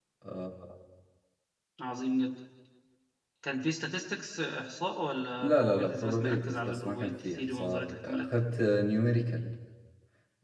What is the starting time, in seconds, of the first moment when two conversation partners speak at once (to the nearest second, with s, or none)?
5 s